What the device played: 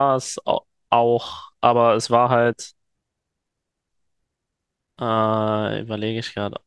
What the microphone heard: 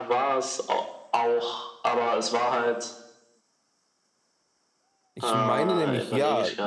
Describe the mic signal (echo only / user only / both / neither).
both